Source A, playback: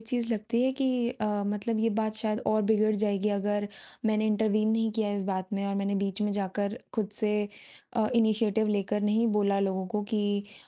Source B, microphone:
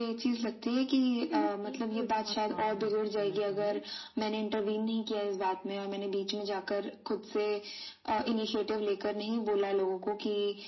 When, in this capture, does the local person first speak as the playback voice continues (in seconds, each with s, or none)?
1.2 s